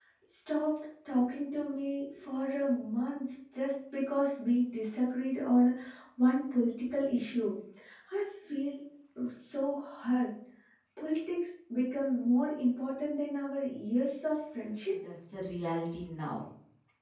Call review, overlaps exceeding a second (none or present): none